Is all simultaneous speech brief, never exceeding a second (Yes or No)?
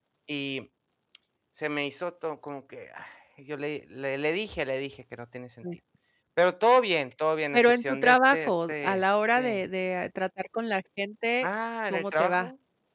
No